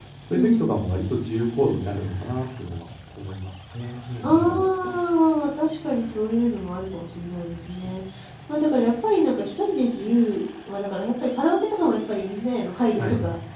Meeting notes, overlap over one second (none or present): none